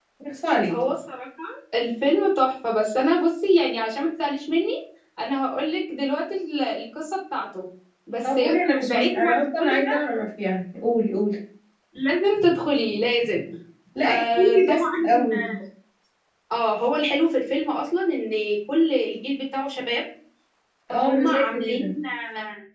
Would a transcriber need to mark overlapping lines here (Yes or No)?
Yes